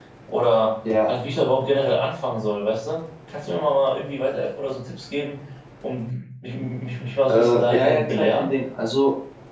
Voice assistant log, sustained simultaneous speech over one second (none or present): present